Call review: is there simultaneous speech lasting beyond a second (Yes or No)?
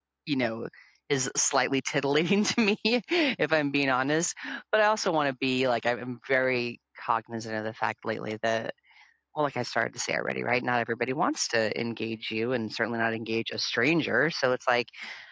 No